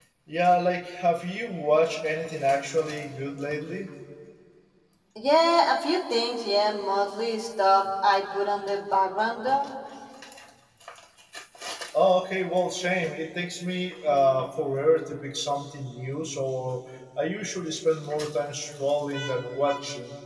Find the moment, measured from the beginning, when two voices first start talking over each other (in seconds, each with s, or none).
none